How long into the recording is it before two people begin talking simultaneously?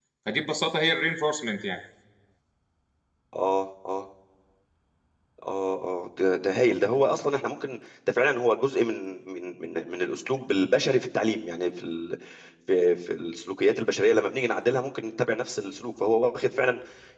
none

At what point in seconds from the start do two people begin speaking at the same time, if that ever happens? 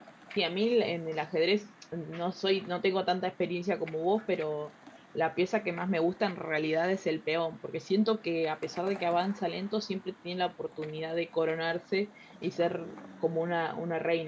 none

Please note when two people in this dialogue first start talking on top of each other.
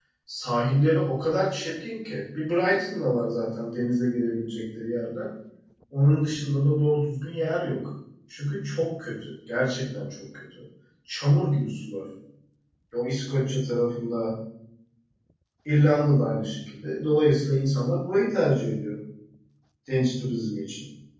none

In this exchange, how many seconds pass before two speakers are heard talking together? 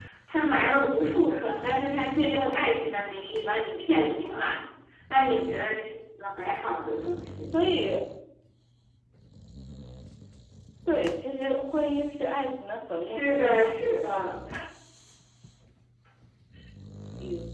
13 s

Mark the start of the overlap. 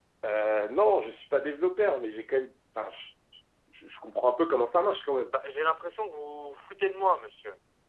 none

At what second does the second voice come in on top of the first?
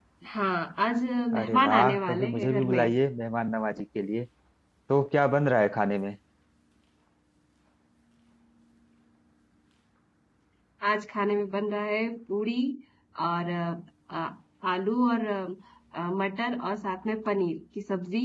1 s

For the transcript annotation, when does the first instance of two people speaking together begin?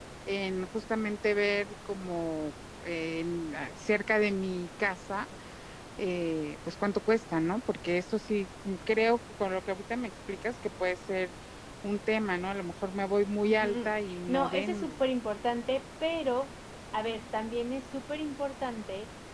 13 s

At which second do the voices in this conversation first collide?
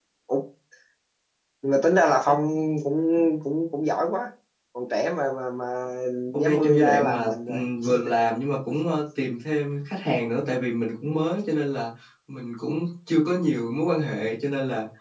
6 s

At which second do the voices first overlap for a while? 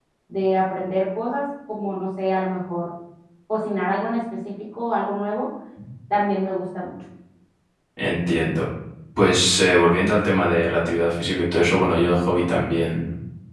none

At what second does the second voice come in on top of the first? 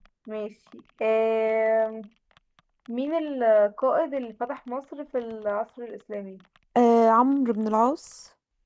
none

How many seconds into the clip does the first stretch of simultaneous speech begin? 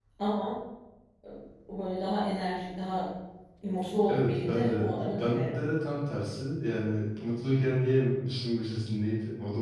4 s

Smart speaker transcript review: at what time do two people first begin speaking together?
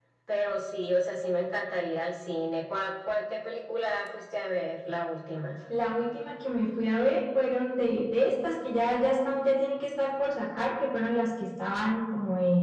none

